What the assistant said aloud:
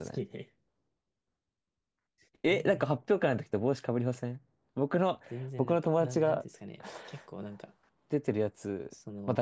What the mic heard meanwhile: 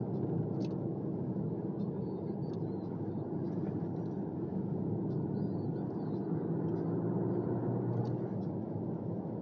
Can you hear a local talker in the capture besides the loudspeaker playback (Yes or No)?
No